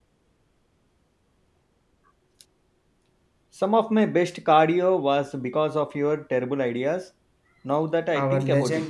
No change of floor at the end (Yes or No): No